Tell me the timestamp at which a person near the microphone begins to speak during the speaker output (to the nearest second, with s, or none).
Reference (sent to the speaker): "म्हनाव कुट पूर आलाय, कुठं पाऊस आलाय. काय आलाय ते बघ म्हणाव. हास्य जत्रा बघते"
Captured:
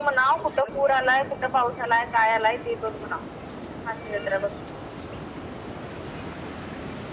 none